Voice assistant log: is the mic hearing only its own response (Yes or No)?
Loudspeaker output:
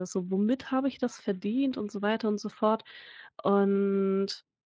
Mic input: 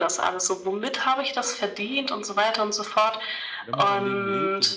No